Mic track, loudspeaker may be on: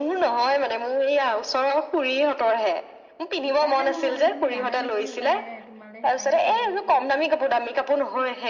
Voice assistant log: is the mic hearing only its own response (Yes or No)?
No